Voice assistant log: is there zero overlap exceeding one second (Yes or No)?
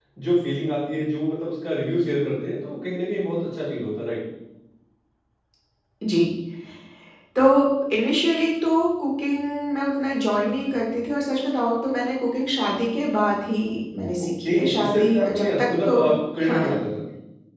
No